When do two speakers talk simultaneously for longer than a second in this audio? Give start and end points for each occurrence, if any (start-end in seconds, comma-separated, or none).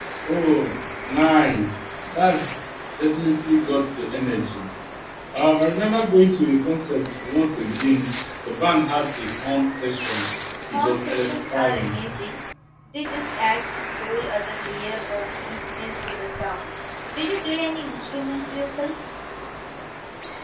10.7-11.9